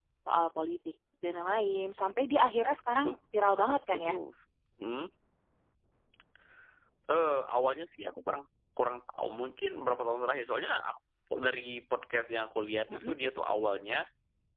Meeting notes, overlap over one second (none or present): none